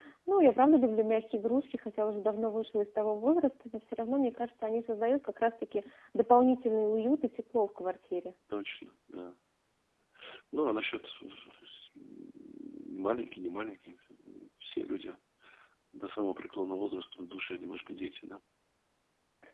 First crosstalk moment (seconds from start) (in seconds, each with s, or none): none